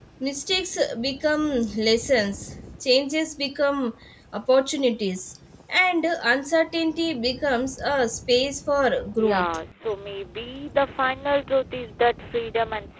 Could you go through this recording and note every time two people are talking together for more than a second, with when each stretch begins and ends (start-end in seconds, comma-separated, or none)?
none